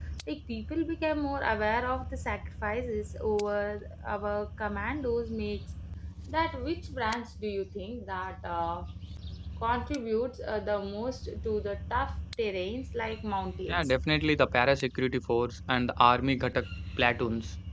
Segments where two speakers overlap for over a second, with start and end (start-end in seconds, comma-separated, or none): none